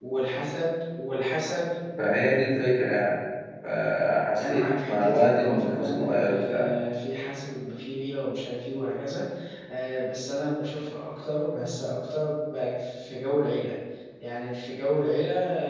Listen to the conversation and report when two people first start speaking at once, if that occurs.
4.4 s

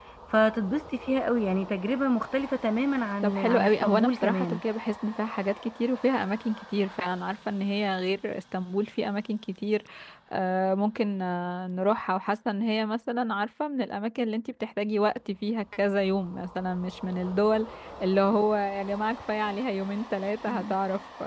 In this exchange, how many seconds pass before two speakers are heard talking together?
3.2 s

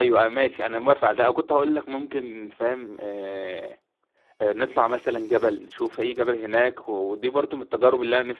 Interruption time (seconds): none

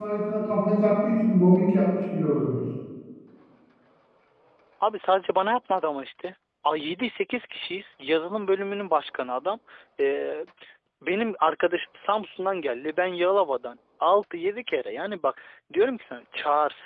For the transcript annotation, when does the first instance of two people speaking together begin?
none

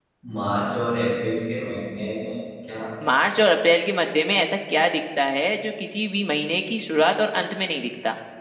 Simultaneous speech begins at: none

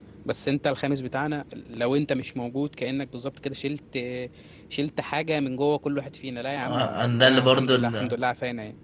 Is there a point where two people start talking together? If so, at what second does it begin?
6.6 s

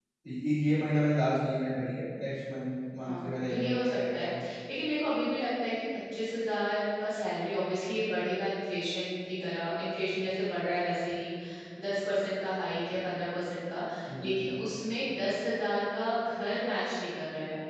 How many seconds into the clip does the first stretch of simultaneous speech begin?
3.0 s

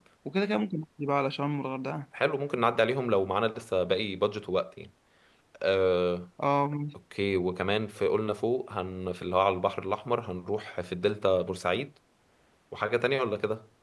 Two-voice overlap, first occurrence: none

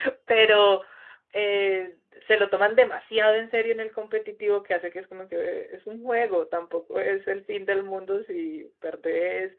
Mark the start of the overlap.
none

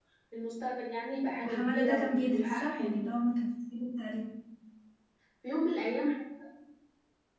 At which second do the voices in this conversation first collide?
1.4 s

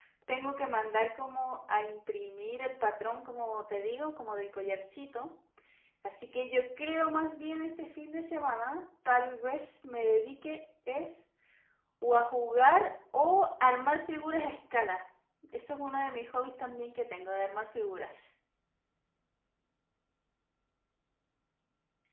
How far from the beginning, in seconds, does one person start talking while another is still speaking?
none

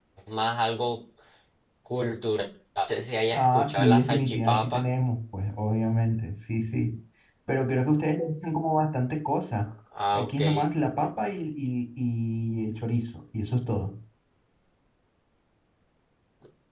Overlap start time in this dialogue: 3.3 s

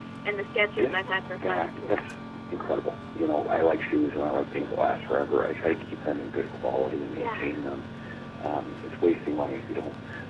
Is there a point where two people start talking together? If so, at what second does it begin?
0.8 s

